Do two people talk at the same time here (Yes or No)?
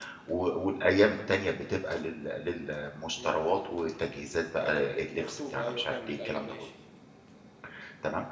Yes